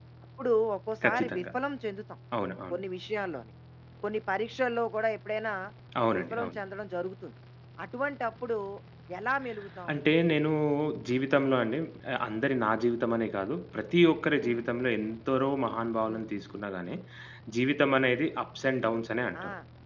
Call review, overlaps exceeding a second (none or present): none